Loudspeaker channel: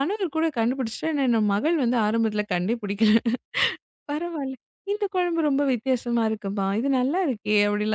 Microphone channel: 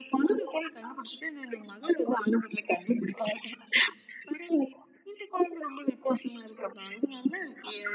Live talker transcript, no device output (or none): none